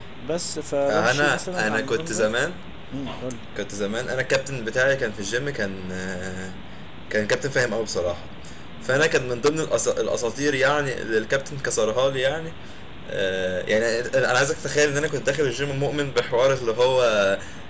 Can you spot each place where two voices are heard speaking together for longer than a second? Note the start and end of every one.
0.9-2.2

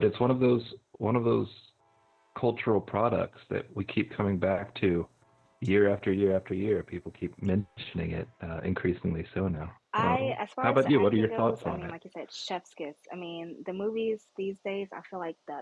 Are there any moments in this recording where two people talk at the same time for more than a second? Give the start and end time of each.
10.0-11.9

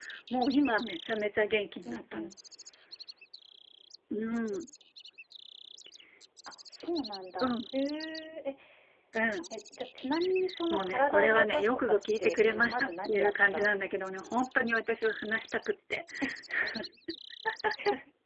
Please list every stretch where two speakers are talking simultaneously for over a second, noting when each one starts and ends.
10.7-13.7

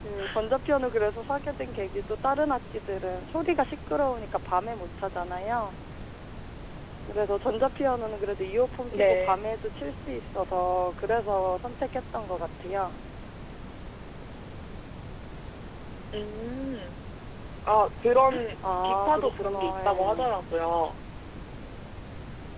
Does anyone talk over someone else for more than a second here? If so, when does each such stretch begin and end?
18.8-20.3

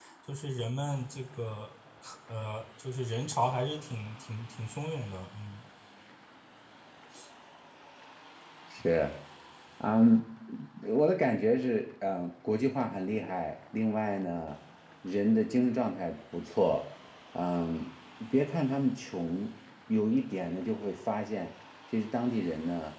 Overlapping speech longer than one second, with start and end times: none

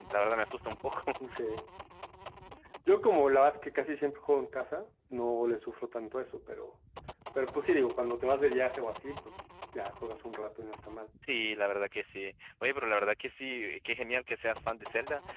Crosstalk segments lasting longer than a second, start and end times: none

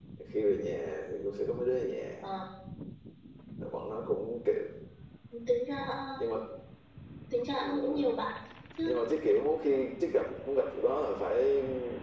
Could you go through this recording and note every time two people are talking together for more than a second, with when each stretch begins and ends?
none

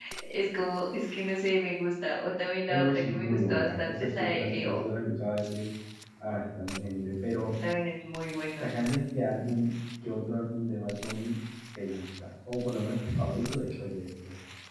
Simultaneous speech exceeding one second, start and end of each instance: 2.7-4.8

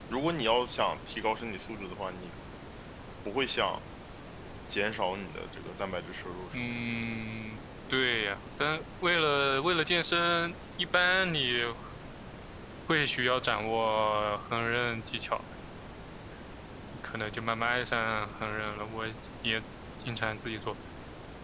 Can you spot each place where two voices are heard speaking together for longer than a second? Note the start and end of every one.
none

